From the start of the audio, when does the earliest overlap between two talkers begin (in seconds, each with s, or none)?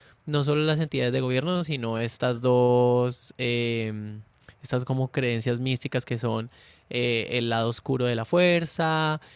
none